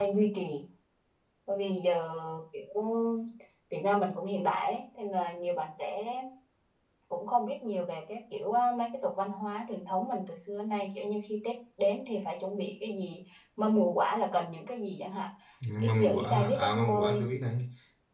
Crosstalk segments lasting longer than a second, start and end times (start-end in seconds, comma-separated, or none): 15.8-17.3